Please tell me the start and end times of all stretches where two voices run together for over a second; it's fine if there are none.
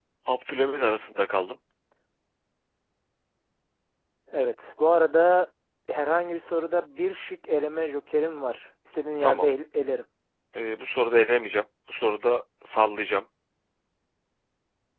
none

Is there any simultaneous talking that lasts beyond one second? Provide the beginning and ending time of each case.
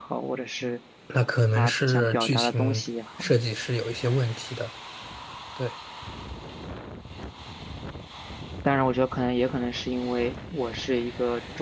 1.5-2.8

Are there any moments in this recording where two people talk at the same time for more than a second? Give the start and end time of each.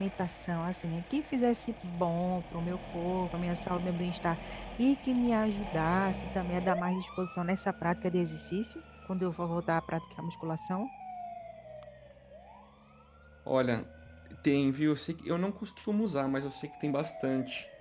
none

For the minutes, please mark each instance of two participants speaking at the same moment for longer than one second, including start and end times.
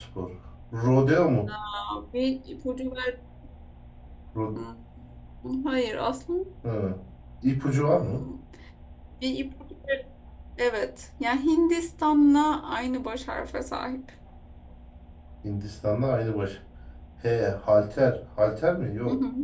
none

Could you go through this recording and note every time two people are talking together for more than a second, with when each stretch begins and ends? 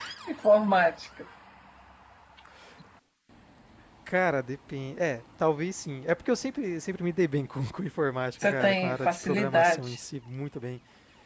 8.4-10.0

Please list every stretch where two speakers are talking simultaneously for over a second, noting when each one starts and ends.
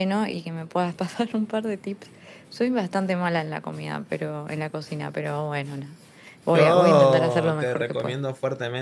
6.5-8.2

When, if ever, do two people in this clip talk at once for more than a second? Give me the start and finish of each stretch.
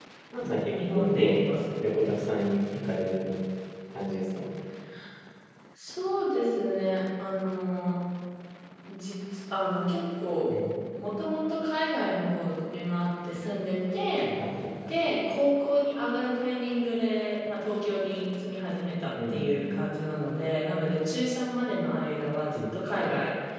0.7-1.9

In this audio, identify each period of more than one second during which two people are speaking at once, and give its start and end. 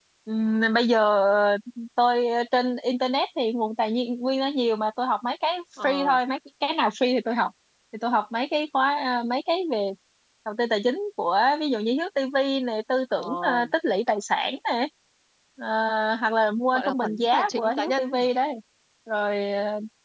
16.7-18.3

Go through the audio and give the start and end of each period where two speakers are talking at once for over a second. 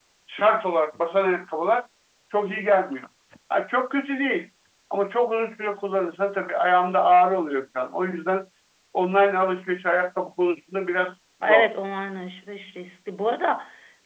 none

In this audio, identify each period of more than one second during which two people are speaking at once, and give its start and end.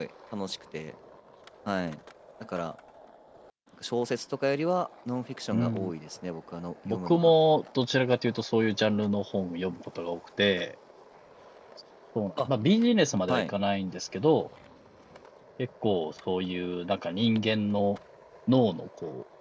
none

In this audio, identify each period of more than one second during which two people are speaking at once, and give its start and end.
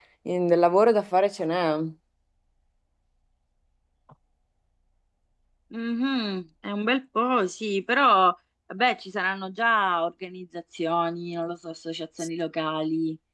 none

